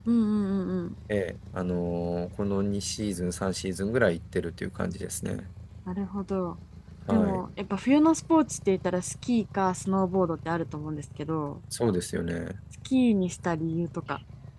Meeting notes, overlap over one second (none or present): none